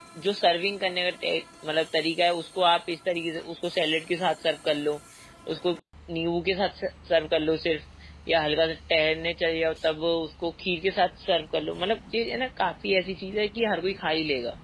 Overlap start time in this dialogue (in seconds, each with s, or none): none